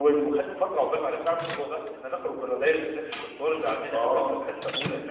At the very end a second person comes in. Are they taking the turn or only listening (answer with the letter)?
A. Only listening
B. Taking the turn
A